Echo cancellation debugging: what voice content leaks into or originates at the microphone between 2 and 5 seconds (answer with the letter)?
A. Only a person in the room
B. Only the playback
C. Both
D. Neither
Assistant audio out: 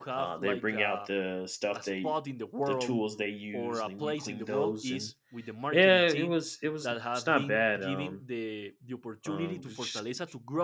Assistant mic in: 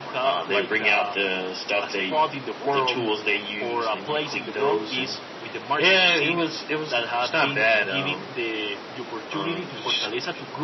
B